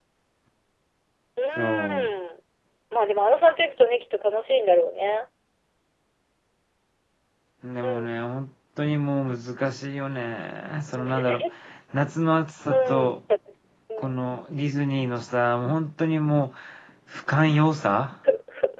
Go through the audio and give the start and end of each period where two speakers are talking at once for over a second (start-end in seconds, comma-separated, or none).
none